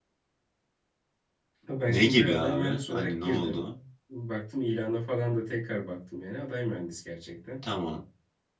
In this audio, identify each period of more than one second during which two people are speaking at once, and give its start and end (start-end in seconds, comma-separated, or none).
1.9-3.6